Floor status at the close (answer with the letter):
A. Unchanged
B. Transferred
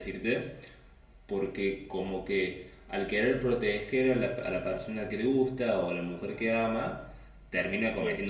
A